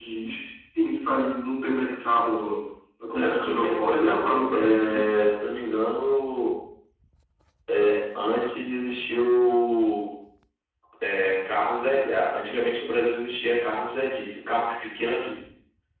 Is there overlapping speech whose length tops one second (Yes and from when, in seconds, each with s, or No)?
Yes, from 3.1 s